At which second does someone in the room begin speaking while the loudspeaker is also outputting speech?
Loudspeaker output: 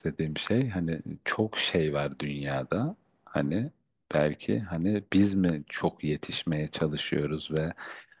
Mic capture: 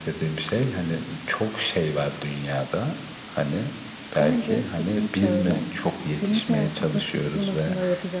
4.2 s

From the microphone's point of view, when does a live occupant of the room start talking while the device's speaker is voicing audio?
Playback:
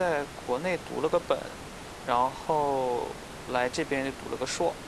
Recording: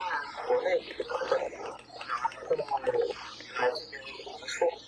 none

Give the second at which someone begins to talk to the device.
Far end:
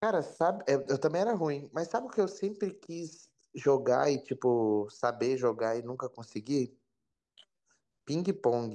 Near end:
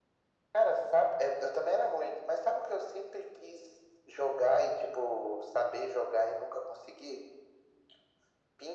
none

